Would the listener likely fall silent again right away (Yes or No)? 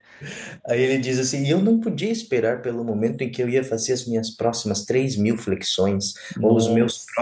Yes